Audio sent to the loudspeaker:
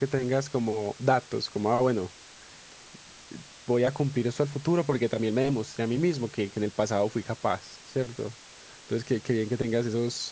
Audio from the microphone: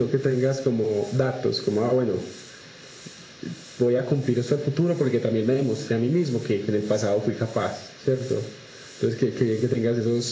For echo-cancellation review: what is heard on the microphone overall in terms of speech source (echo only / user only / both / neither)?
echo only